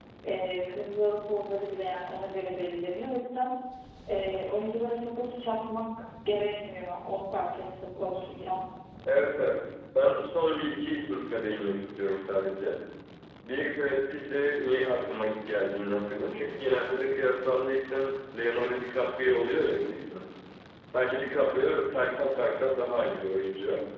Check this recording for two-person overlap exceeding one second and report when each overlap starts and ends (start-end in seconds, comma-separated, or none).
none